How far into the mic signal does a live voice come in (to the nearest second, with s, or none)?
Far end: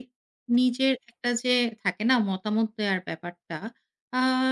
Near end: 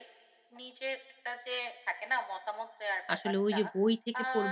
3 s